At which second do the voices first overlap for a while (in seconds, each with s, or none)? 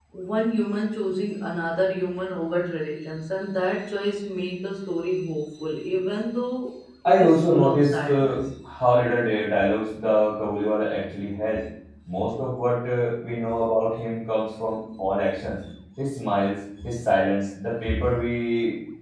7.0 s